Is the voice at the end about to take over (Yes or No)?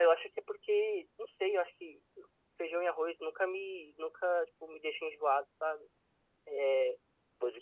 No